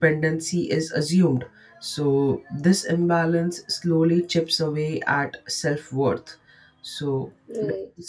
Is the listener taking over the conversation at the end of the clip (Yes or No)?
No